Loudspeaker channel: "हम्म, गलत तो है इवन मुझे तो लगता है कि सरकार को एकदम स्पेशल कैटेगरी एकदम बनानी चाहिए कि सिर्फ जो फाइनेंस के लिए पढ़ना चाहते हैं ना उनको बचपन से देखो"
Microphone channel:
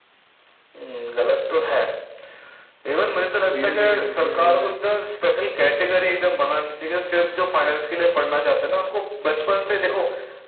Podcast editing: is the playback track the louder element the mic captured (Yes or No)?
Yes